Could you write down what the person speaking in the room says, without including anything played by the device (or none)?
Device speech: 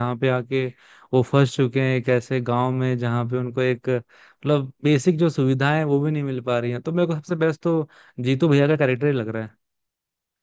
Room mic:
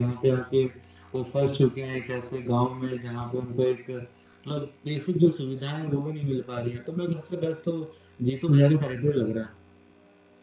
none